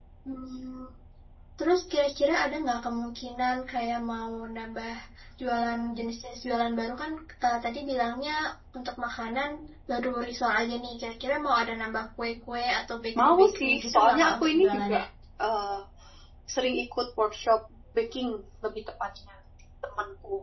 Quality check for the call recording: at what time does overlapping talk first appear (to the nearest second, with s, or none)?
13 s